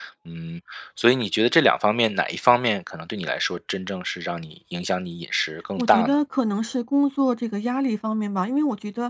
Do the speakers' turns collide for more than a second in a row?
No

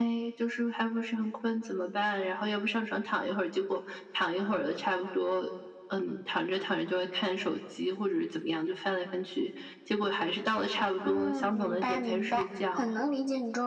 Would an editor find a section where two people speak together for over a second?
Yes, from 11.0 s

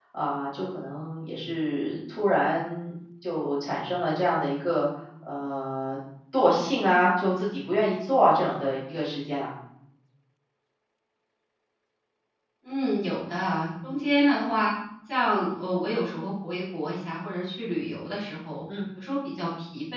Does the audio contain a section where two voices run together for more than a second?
No

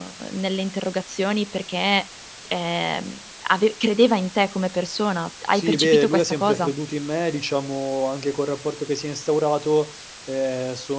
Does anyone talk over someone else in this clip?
Yes, from 5.5 s

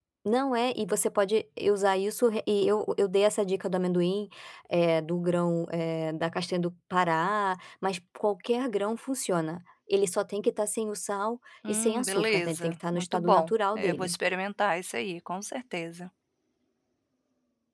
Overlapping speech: Yes, from 11.6 s

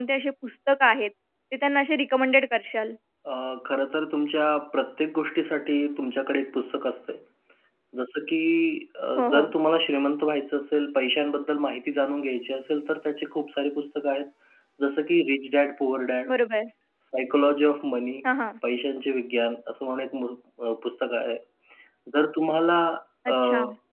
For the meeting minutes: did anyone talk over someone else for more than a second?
No

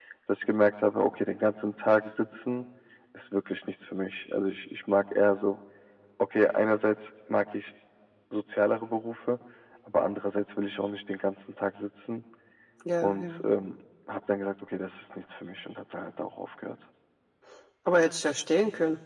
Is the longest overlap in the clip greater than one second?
No

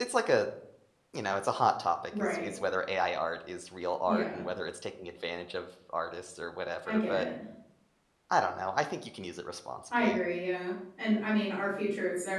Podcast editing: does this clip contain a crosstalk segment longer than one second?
No

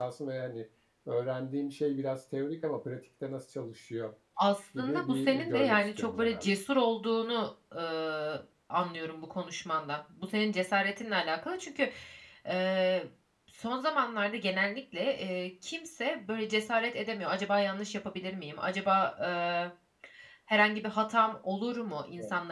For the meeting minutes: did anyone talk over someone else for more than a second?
Yes, from 4.8 s

